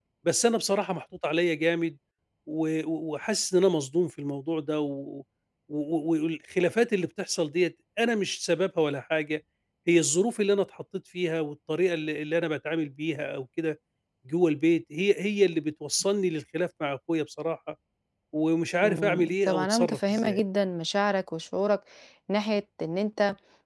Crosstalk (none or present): present